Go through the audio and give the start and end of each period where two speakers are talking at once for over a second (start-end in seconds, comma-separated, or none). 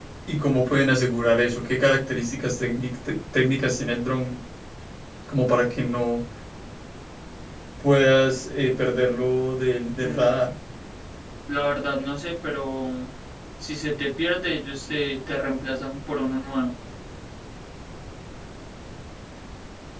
none